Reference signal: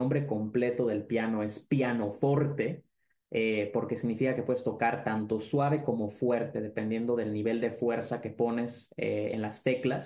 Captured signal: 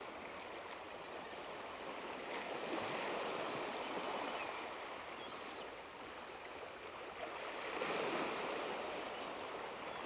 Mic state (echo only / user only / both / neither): neither